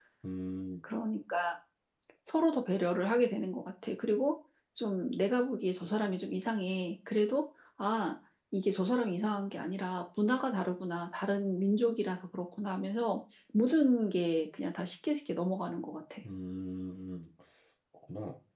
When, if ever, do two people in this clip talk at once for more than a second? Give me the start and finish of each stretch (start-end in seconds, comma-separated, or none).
none